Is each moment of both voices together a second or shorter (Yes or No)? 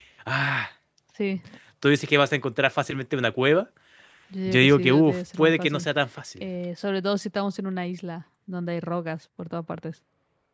No